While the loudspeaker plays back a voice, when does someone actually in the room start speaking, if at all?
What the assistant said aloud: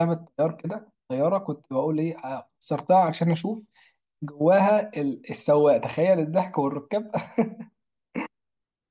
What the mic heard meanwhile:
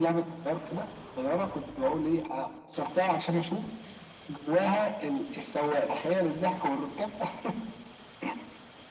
none

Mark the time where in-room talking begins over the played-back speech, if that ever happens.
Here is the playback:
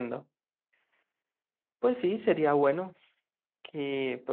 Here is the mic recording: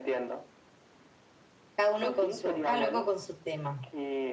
1.8 s

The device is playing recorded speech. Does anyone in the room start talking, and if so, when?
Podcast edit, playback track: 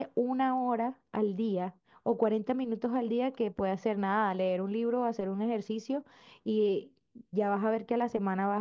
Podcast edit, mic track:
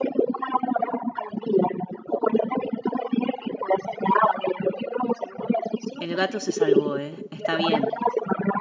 6.0 s

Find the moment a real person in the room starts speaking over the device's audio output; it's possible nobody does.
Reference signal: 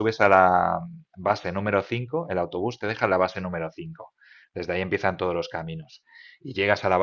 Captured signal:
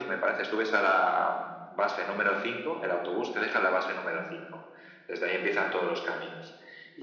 none

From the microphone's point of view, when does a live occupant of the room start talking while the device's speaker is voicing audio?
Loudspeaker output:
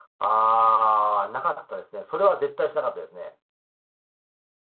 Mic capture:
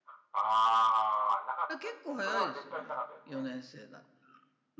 1.7 s

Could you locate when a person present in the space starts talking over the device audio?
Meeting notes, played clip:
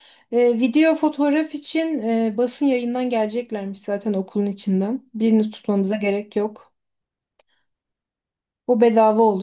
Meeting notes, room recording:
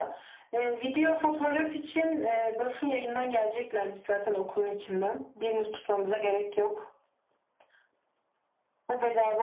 none

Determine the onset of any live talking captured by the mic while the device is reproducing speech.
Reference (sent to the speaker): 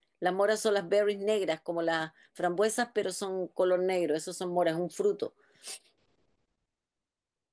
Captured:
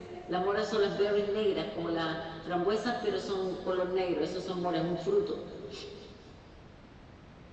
none

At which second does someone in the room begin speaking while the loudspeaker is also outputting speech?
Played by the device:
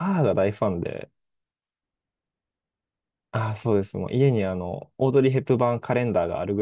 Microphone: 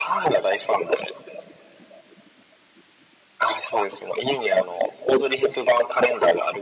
none

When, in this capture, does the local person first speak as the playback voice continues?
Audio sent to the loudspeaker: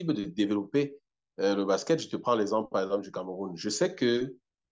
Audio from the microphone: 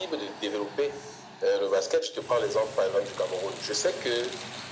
none

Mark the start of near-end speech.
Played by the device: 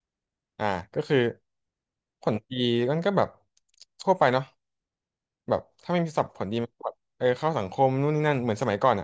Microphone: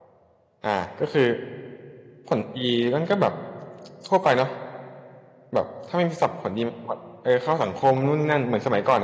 none

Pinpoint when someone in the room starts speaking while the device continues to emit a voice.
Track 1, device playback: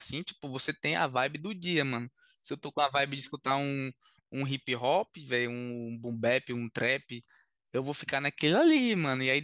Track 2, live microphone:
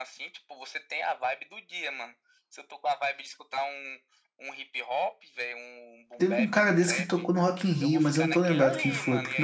6.2 s

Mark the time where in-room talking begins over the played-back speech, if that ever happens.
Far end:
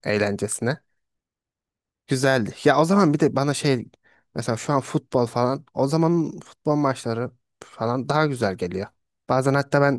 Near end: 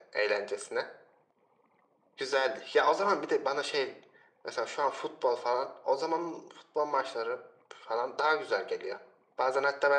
none

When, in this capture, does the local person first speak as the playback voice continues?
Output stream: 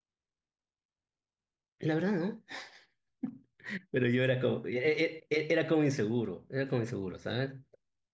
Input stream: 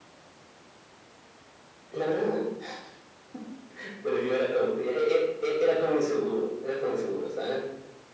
none

